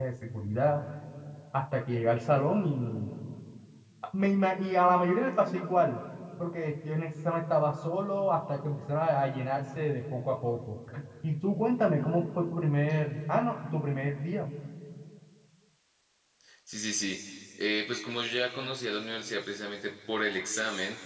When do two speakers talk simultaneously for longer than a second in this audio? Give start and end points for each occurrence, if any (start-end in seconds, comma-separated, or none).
none